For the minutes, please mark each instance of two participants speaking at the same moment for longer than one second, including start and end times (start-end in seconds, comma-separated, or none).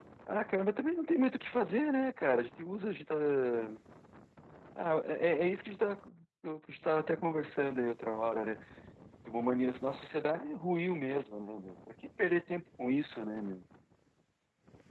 none